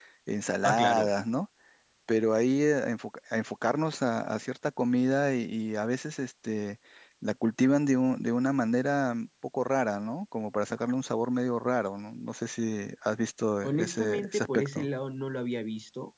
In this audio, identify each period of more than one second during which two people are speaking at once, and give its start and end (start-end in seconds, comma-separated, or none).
13.6-14.9